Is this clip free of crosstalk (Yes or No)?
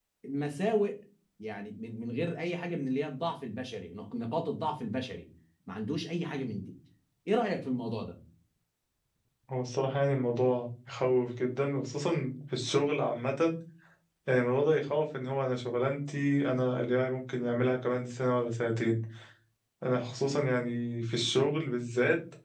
Yes